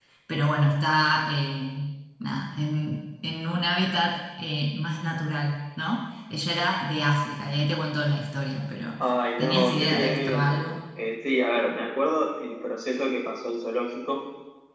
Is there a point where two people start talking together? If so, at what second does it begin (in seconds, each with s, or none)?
9.4 s